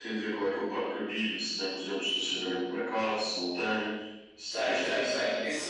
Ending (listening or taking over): taking over